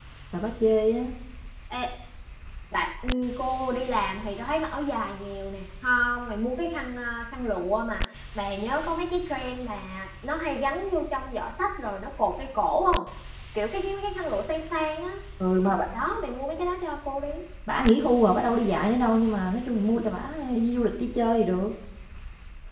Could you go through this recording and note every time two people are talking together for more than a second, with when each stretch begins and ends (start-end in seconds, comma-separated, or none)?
none